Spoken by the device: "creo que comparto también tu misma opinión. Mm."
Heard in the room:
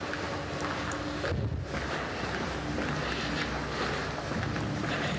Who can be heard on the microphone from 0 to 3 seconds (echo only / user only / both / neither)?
neither